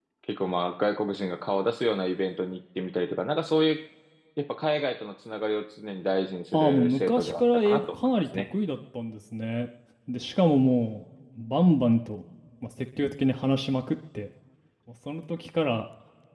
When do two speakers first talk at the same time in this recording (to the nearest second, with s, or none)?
7 s